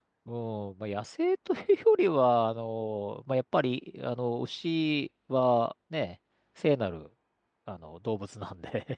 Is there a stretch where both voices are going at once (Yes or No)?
No